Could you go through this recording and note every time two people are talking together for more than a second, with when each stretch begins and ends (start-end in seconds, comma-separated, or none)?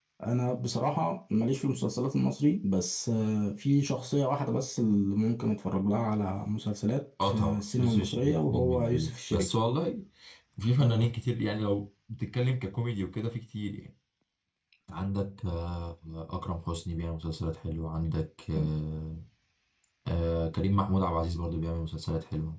7.2-9.5